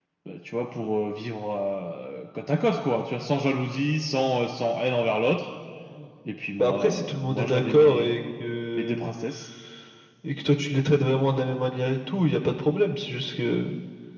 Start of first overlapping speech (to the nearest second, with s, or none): 7 s